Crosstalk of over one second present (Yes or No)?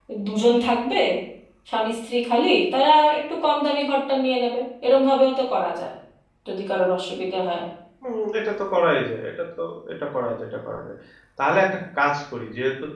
No